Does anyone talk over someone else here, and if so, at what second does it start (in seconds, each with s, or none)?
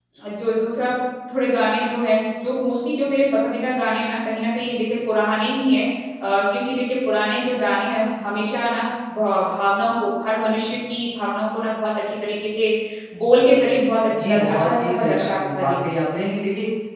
14.1 s